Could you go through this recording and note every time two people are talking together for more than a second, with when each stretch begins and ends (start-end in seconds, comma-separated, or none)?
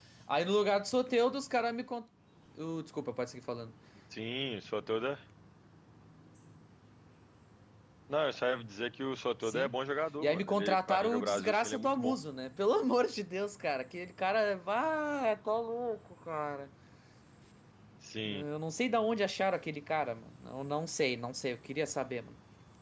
10.2-12.1